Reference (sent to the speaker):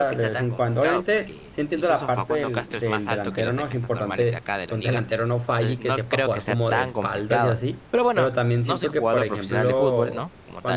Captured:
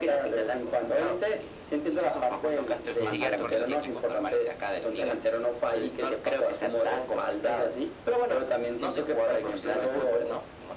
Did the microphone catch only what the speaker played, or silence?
No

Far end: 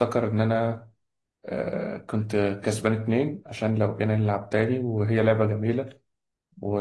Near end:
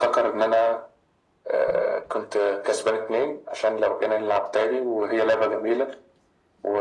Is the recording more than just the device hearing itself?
No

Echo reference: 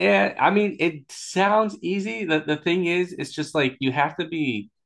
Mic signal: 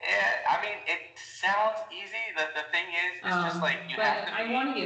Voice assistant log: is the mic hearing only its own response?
No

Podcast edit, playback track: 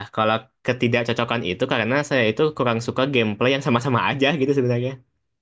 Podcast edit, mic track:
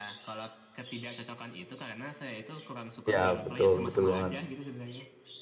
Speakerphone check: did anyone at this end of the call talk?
Yes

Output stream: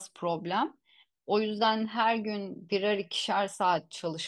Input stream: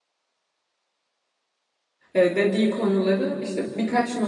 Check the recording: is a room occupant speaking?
Yes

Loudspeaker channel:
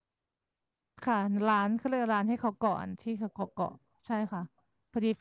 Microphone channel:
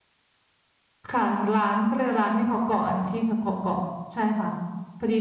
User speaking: No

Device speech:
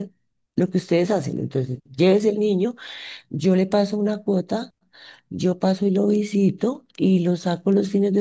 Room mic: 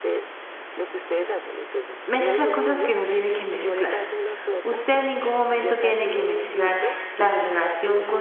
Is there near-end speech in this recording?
Yes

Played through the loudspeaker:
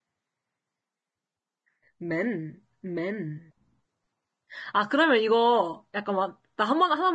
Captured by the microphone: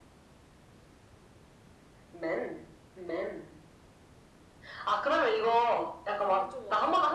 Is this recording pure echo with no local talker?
No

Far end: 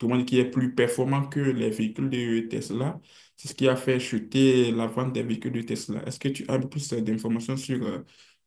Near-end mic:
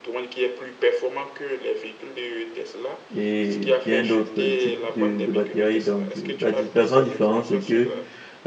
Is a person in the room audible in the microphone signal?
Yes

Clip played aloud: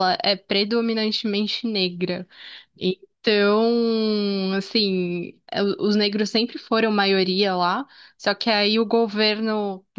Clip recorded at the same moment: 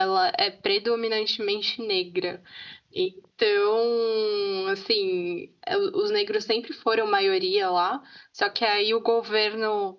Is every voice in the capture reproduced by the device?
Yes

